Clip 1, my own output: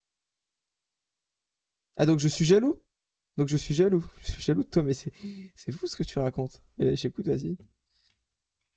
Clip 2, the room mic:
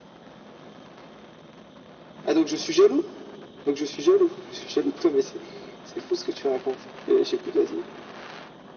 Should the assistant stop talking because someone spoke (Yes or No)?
No